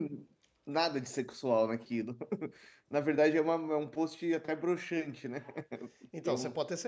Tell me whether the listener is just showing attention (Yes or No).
No